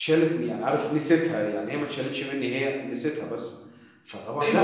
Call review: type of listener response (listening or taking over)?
taking over